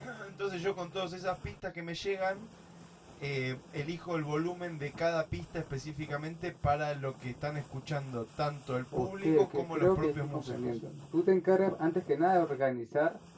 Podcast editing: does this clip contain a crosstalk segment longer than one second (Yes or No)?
Yes